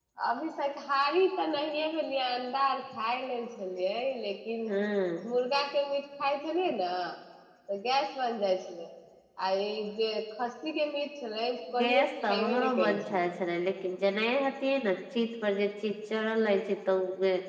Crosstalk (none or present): present